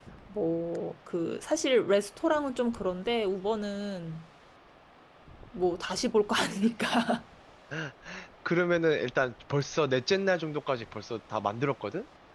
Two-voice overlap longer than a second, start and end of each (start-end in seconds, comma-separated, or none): none